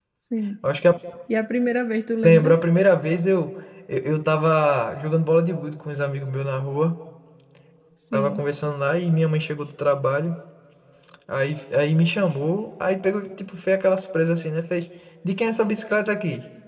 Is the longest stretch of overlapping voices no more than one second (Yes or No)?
Yes